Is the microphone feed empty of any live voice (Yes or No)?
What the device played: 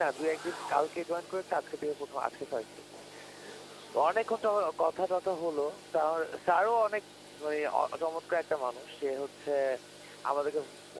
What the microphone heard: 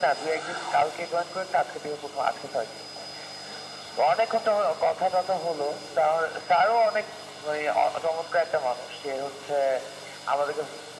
Yes